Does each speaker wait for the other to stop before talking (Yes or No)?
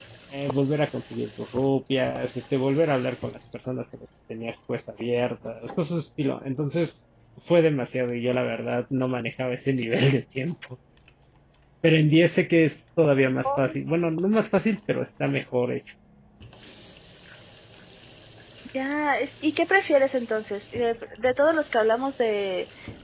Yes